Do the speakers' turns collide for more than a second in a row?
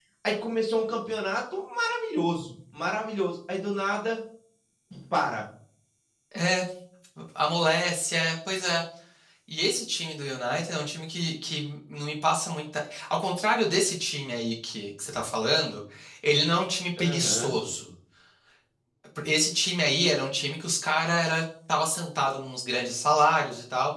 No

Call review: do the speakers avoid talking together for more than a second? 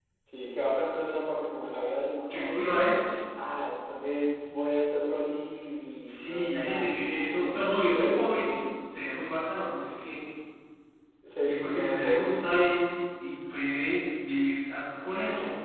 No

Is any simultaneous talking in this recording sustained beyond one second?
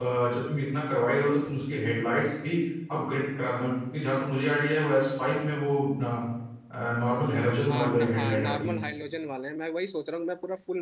Yes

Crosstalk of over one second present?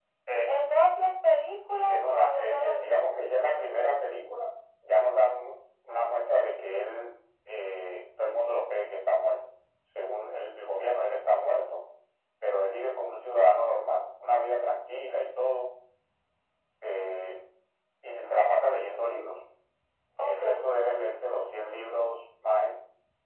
Yes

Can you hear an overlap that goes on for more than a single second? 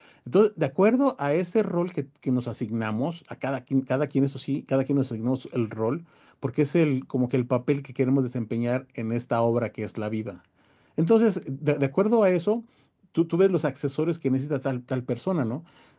No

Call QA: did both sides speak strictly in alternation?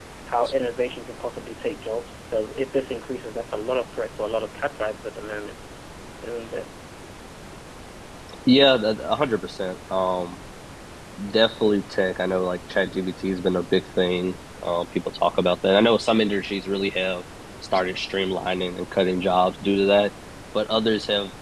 Yes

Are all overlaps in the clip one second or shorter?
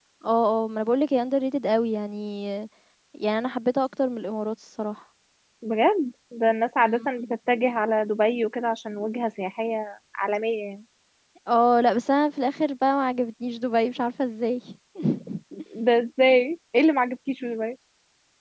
Yes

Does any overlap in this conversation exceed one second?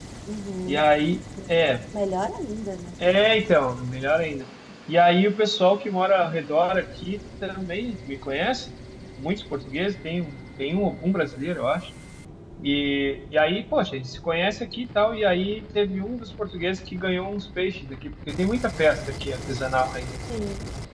No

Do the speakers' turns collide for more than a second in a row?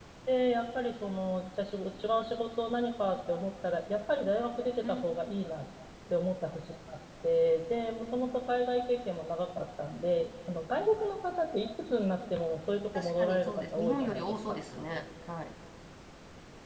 Yes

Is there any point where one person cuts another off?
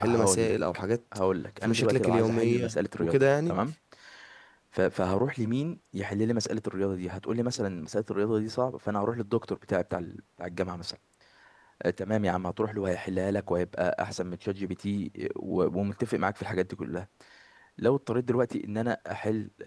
Yes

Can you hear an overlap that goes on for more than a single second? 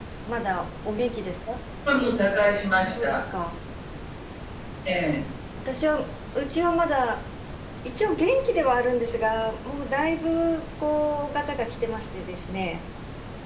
No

